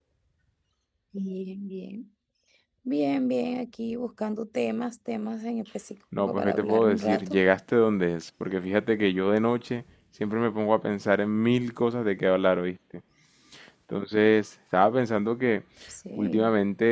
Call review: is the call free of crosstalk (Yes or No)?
No